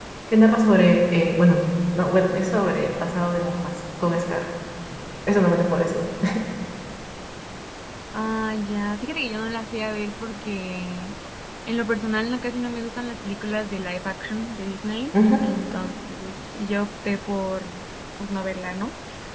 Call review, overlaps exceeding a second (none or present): none